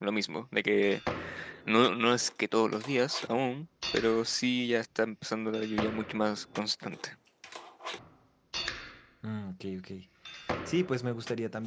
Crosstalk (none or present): none